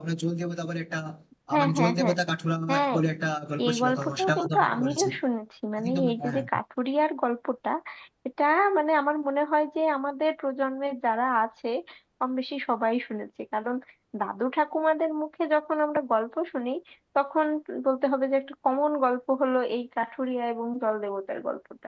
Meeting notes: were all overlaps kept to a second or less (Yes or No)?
No